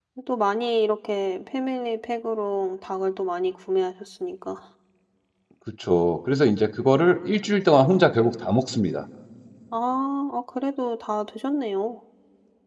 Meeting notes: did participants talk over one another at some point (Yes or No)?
No